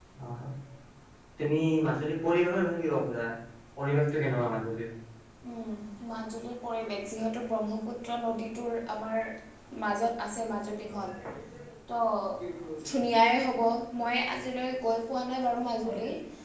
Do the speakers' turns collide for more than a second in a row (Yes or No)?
No